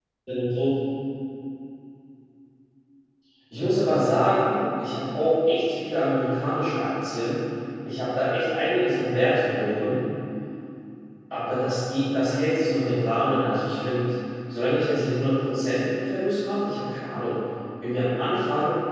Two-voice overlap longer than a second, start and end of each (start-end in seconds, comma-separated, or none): none